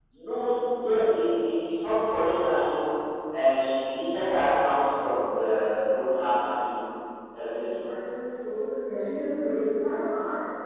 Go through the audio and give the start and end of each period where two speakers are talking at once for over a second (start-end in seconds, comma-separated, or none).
none